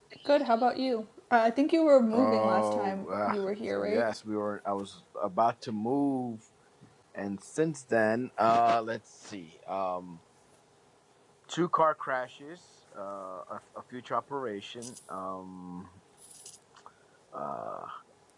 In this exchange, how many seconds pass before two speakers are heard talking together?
2 s

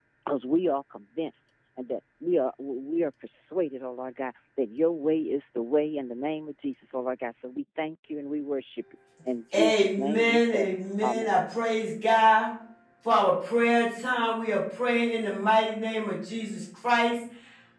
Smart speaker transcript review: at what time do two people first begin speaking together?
10 s

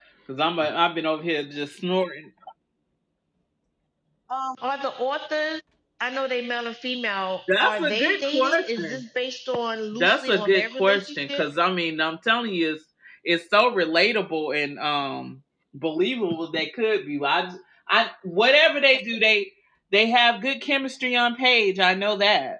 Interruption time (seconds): 7 s

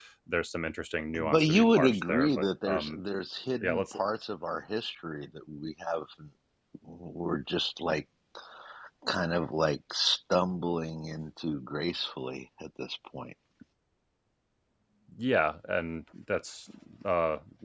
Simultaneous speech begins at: 1 s

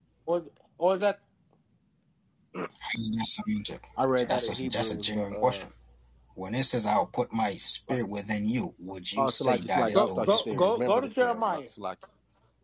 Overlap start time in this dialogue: 4 s

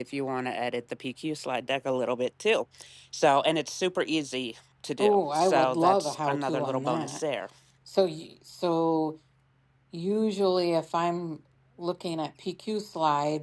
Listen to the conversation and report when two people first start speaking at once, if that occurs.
5 s

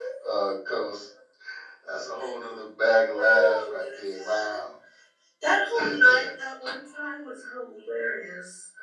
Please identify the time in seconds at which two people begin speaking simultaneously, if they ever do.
3 s

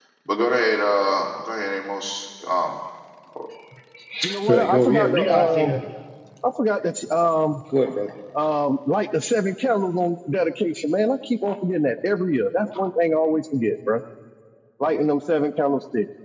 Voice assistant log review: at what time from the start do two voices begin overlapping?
4 s

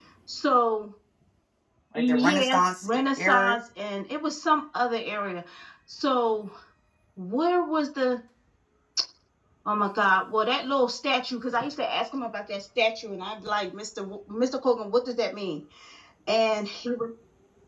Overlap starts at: 2 s

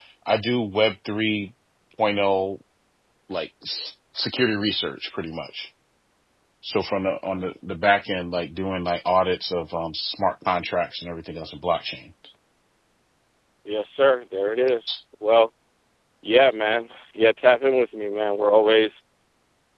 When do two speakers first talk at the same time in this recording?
none

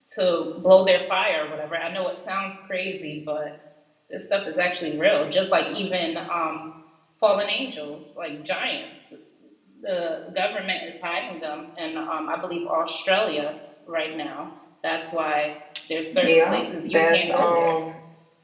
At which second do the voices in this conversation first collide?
16 s

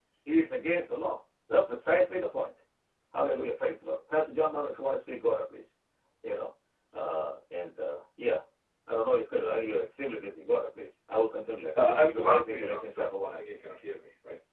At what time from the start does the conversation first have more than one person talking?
12 s

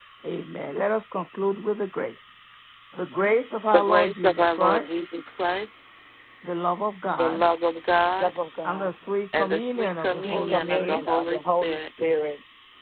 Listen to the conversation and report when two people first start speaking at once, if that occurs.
4 s

